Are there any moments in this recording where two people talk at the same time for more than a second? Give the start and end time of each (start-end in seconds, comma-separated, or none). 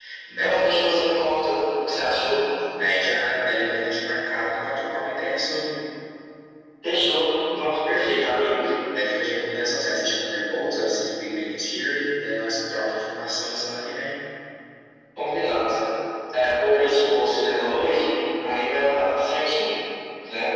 none